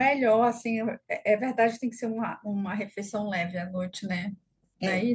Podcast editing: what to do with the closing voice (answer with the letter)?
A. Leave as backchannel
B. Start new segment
B